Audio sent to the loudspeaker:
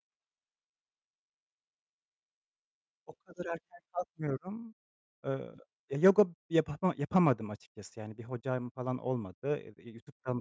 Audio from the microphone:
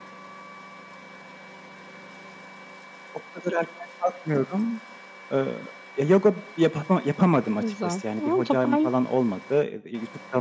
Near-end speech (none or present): present